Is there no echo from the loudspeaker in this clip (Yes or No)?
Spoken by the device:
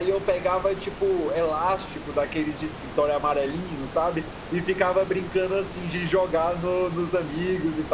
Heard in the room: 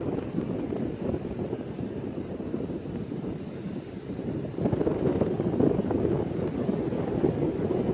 Yes